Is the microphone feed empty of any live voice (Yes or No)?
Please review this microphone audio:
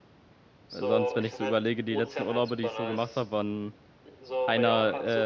No